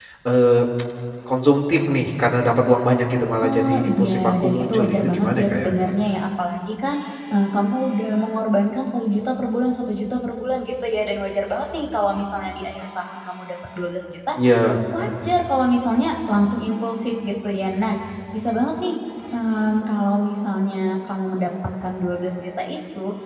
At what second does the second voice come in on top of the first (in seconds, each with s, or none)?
3.4 s